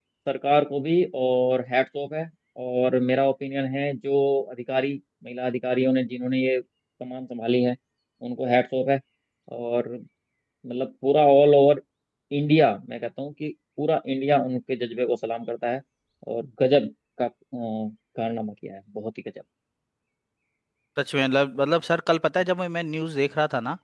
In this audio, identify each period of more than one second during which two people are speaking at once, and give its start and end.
none

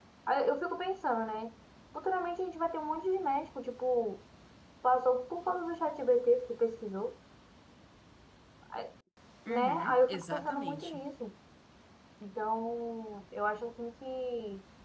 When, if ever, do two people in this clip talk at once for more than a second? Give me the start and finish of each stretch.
9.5-11.1

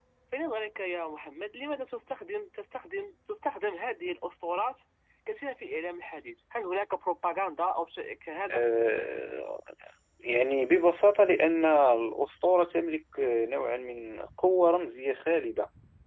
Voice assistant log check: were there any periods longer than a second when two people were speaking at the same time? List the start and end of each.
none

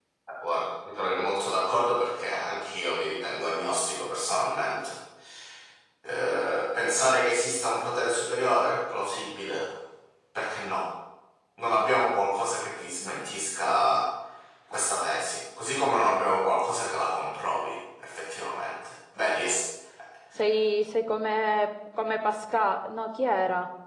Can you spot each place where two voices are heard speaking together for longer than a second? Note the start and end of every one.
none

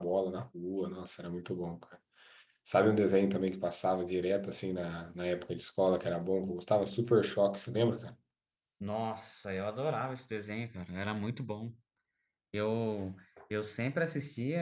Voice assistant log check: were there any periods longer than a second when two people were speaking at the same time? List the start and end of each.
none

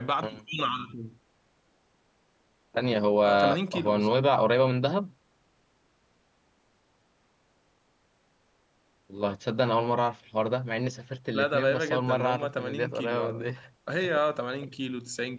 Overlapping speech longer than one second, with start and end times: 11.3-13.5

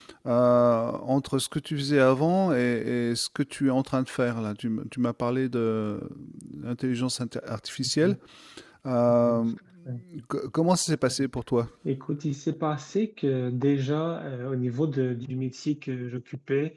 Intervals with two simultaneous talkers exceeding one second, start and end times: none

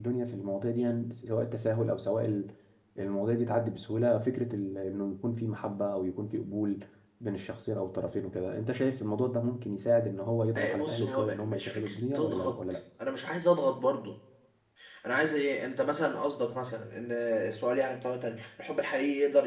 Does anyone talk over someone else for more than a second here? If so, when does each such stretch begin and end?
10.6-12.6

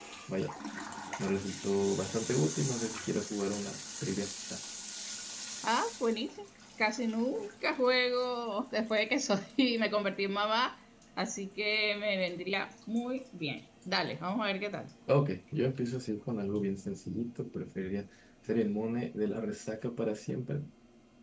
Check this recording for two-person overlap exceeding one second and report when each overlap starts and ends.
none

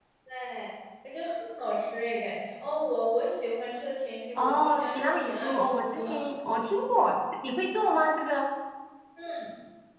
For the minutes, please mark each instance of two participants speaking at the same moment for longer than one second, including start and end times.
4.4-6.2

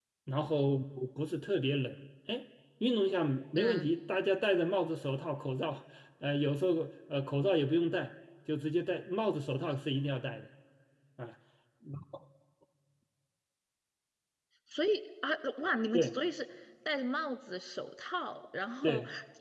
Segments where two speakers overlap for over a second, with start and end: none

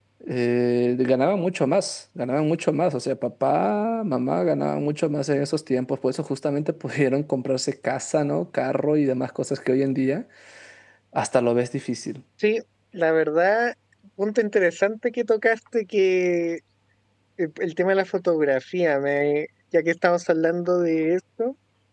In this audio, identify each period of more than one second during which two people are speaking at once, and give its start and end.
none

